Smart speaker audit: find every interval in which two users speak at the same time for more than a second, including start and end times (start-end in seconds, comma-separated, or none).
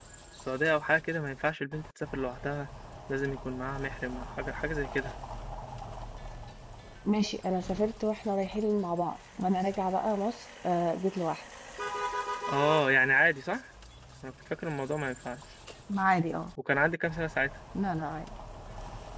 none